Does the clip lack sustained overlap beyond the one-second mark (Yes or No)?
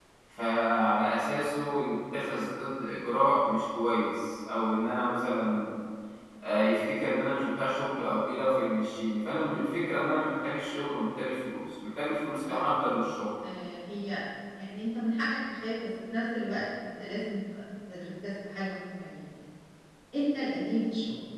Yes